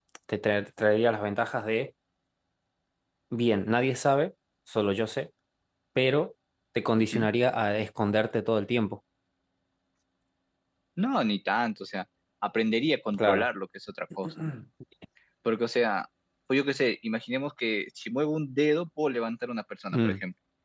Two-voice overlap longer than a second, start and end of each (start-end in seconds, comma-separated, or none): none